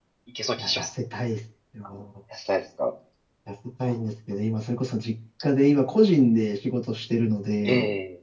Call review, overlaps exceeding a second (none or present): none